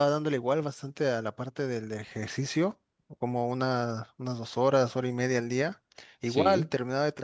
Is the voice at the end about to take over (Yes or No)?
No